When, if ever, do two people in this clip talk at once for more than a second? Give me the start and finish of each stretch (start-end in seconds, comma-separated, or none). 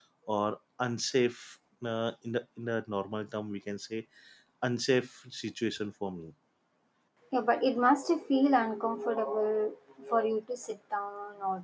none